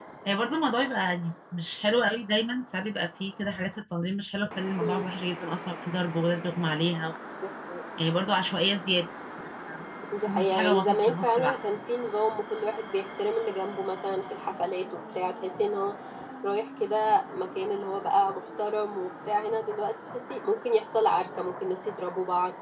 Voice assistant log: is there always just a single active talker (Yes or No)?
No